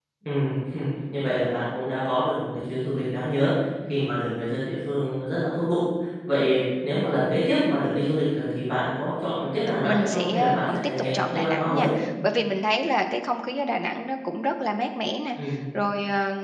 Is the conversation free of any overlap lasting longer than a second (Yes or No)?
No